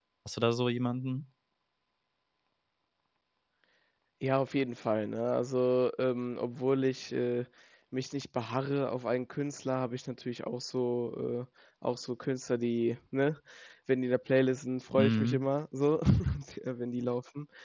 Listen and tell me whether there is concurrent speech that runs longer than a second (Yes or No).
No